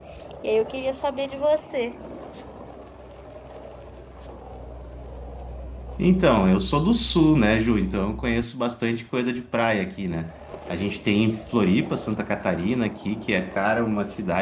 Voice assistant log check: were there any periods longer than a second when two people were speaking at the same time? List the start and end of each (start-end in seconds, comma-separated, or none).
none